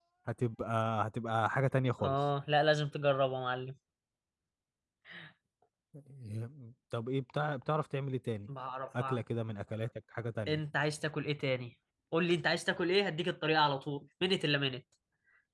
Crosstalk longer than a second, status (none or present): none